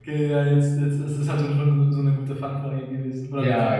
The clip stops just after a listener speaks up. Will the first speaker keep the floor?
No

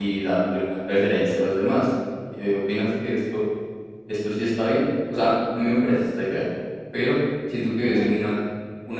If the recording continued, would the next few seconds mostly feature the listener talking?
No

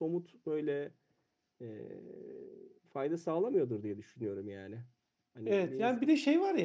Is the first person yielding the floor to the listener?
Yes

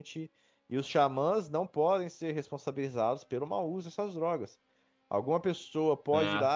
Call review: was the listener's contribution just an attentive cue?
Yes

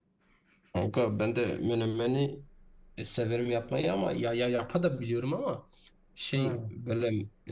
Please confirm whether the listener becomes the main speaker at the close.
No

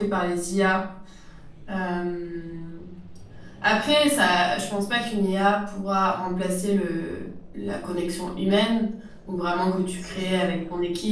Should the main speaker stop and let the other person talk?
No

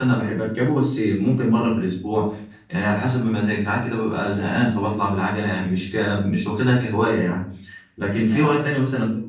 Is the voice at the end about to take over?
No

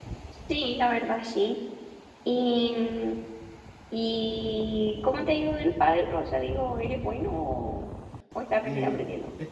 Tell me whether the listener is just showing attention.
No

